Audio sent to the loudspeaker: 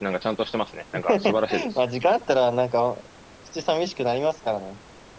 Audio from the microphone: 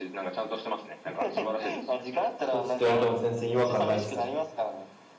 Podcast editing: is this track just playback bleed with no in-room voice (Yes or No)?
No